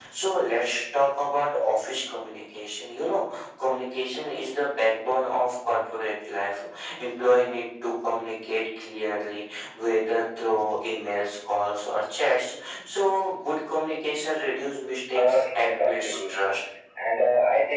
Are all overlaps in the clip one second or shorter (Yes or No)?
No